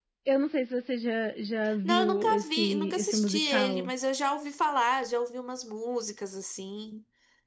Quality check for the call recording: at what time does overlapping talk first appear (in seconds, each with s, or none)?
1.6 s